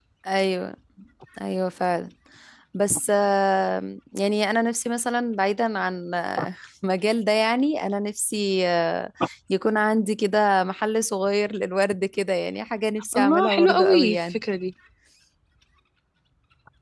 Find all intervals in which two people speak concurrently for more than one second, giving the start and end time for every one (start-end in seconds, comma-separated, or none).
13.2-14.4